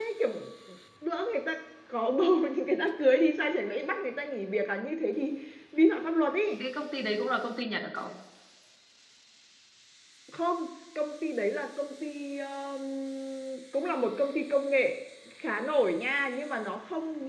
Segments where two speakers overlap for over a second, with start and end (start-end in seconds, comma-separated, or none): none